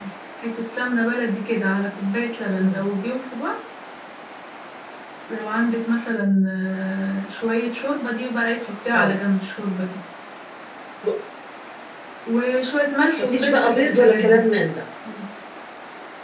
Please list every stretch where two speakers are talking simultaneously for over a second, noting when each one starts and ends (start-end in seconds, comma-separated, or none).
13.2-14.4